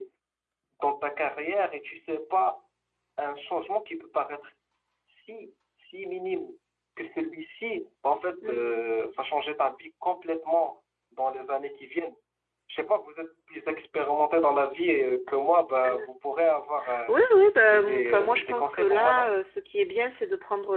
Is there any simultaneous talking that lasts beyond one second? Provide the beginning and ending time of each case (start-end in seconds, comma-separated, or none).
17.6-19.3